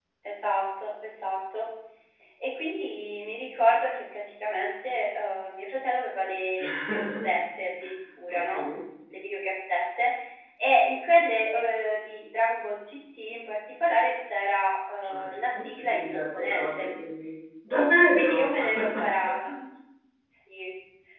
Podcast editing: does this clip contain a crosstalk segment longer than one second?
Yes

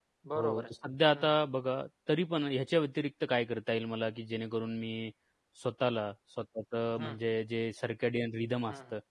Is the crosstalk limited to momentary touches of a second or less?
Yes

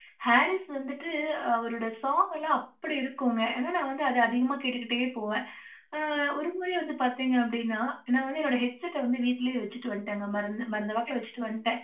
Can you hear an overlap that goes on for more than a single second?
No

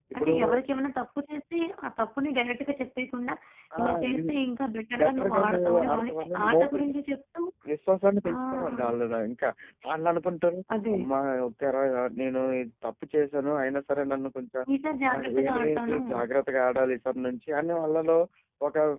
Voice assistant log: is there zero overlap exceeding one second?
No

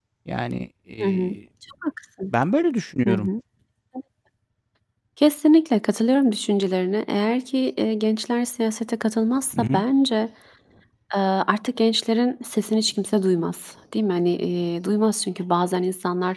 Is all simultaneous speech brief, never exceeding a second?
Yes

